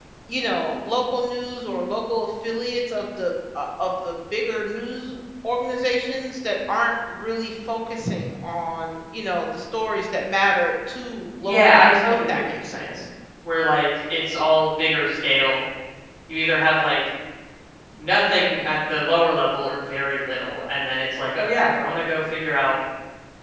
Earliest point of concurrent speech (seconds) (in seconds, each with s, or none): 11.4 s